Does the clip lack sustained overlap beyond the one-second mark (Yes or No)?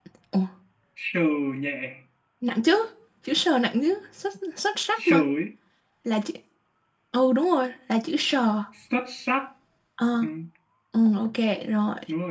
Yes